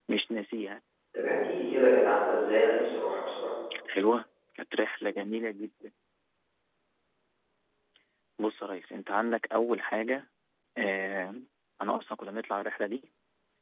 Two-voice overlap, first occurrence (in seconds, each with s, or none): none